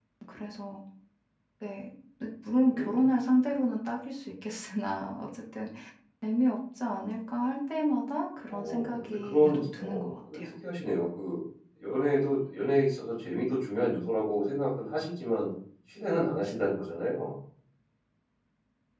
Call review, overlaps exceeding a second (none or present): present